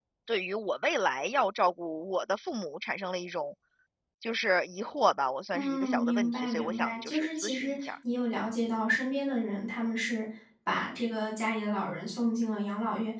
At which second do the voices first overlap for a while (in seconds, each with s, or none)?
5.5 s